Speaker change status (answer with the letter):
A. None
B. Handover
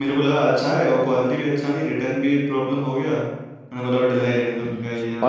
B